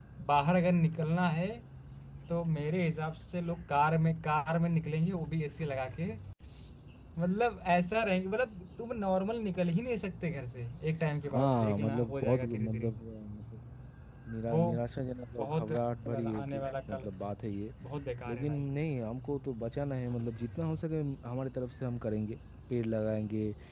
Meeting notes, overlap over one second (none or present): present